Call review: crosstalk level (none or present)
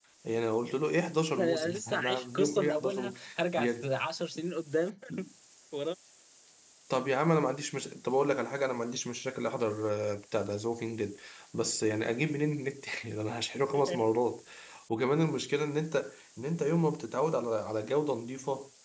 present